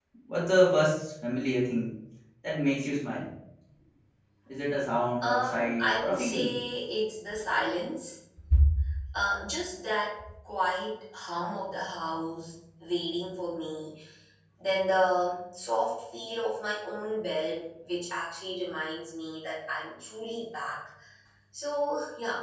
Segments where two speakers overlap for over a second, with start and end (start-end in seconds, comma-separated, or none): 5.2-6.5